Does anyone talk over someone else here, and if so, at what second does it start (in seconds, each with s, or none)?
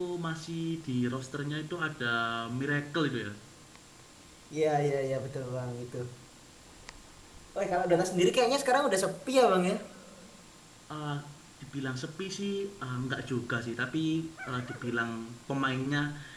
none